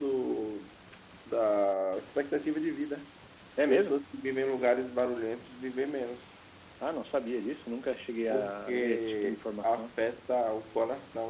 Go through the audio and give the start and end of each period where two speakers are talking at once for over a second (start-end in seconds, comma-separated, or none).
8.3-9.9